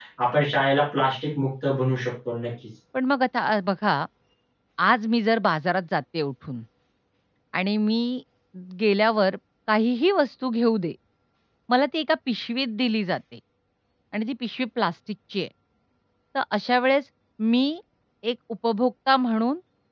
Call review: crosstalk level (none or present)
none